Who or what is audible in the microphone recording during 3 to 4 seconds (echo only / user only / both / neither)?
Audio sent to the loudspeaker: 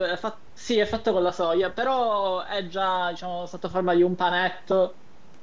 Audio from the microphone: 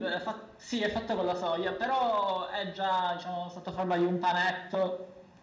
echo only